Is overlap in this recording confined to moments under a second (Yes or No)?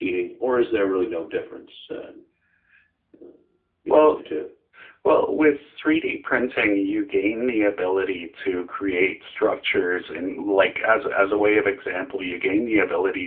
Yes